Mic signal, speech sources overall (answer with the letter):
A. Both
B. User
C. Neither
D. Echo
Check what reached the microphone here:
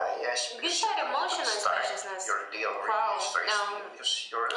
D